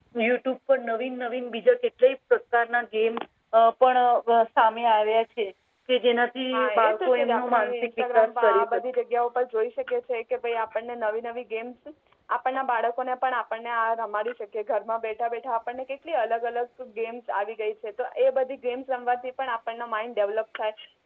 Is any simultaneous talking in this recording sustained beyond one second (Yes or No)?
Yes